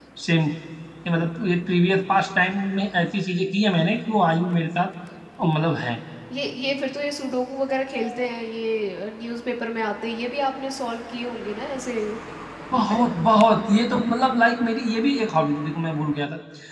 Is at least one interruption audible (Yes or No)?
No